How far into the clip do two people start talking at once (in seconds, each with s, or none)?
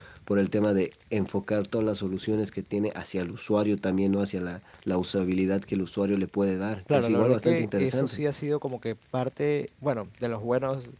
6.9 s